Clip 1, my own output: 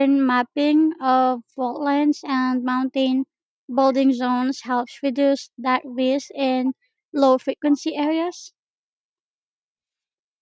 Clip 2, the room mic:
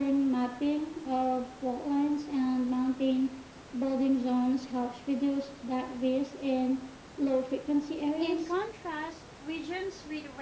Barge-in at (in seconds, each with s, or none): 8.2 s